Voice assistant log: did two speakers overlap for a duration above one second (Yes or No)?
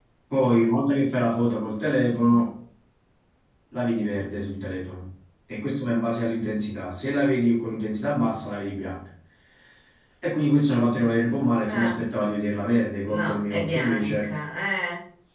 Yes